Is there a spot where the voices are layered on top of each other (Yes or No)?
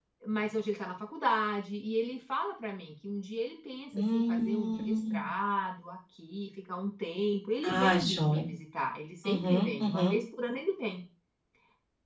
Yes